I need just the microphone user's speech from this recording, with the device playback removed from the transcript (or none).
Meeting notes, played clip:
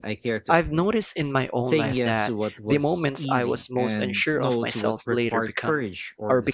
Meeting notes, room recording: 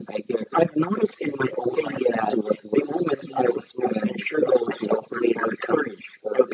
none